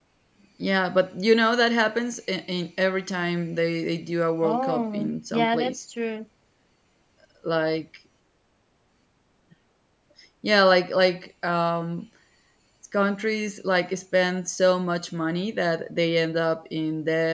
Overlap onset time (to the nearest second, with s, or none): 4 s